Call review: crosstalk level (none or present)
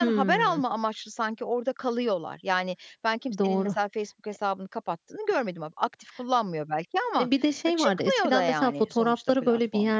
present